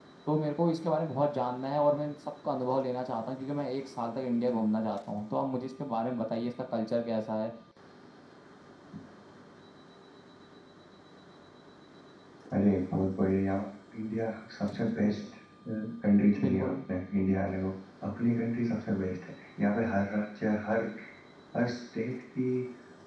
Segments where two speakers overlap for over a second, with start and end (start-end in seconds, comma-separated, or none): none